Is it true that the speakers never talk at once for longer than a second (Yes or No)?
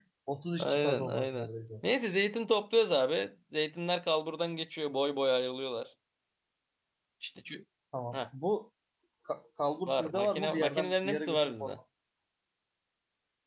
No